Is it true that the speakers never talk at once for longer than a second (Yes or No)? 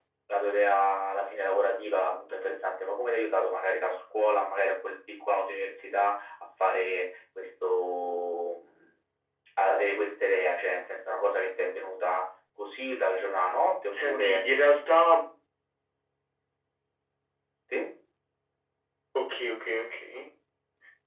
Yes